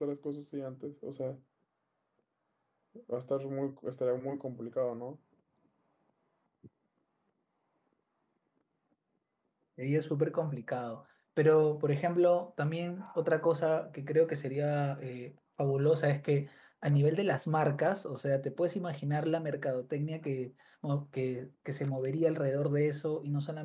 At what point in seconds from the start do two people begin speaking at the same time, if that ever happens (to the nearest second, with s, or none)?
none